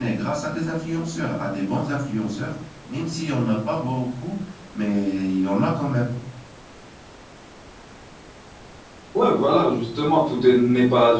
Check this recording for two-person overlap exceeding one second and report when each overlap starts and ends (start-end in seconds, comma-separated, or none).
none